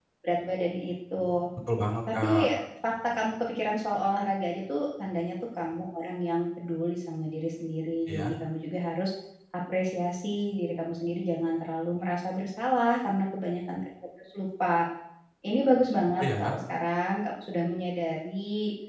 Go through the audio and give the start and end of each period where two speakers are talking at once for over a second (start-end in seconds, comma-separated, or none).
none